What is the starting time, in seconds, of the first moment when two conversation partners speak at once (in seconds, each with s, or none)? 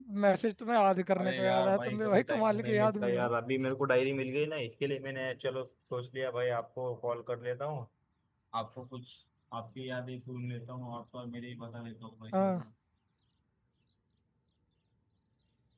1.2 s